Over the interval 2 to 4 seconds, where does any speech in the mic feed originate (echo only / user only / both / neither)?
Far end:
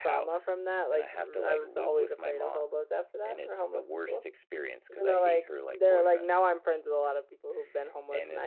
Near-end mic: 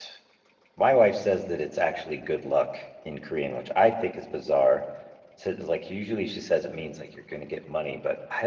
user only